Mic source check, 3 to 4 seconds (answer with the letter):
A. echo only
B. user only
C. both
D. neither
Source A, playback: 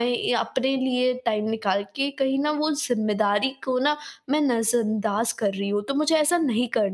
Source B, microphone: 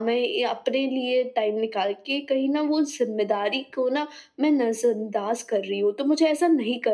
A